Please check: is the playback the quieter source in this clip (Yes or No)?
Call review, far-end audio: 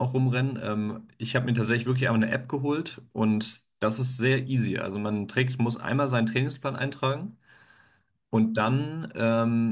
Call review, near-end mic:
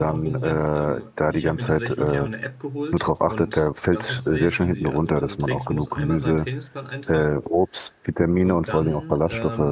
Yes